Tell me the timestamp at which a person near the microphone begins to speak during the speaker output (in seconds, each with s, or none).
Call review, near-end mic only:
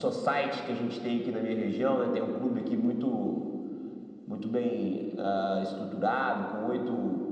none